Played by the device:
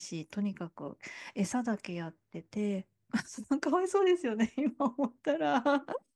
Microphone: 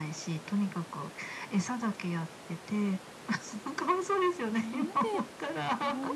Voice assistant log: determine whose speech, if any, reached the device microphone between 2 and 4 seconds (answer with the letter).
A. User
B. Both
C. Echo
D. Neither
C